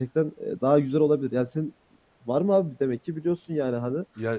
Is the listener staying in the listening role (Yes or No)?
No